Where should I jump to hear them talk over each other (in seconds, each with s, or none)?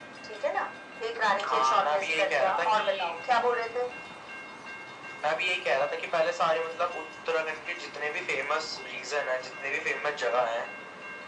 1.5 s